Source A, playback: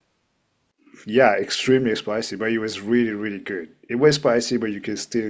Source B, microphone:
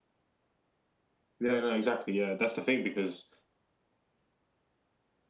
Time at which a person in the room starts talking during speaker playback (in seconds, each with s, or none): 1.4 s